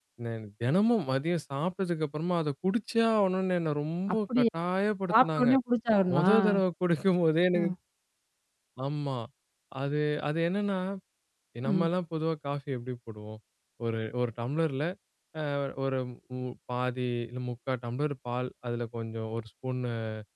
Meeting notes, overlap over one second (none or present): none